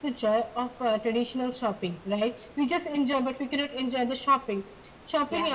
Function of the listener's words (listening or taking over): listening